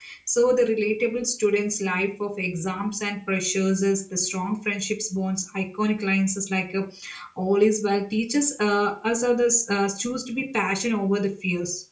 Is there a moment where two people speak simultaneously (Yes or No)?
No